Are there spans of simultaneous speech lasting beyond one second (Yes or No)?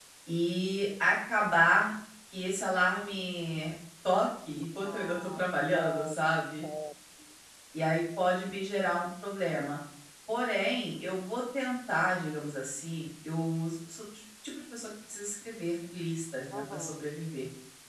Yes